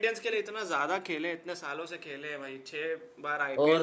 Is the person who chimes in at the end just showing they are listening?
No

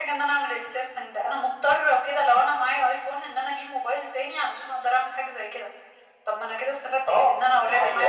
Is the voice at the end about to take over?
Yes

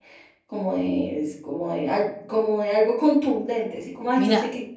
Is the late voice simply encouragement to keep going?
Yes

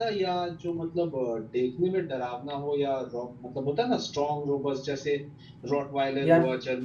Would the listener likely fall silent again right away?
Yes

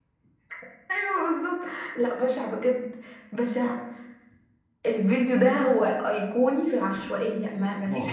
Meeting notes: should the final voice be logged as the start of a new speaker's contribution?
No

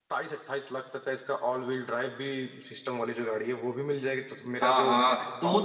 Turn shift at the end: Yes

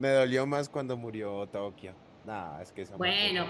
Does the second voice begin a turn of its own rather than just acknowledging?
Yes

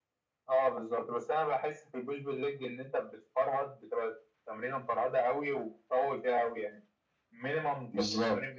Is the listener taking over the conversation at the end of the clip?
No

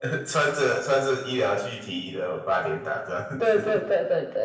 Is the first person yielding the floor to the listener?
Yes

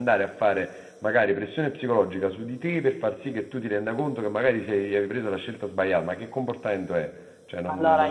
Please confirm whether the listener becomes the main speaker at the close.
Yes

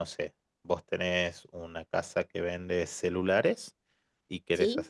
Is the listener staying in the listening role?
Yes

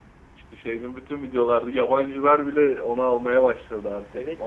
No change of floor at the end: No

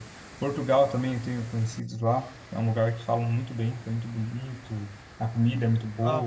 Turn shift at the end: Yes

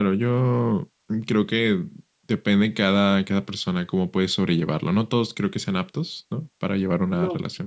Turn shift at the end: Yes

